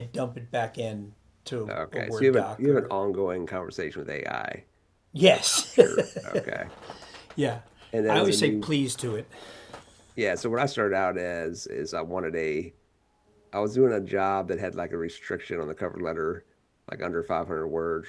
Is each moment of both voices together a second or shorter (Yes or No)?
No